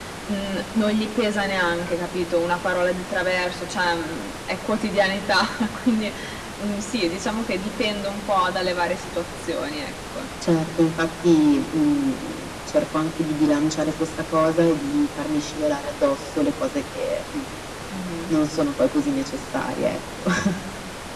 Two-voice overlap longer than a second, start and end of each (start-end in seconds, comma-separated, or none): none